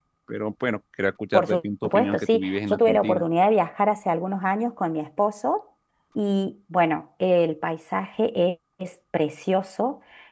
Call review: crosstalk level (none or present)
present